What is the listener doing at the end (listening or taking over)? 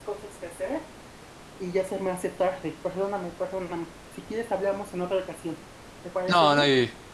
taking over